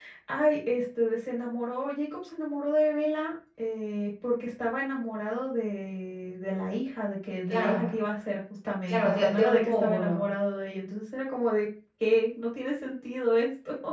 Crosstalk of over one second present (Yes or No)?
Yes